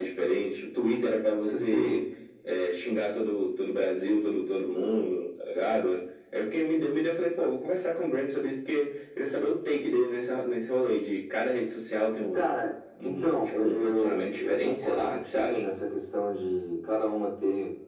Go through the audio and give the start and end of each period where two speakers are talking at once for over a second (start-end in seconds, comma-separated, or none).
13.0-15.6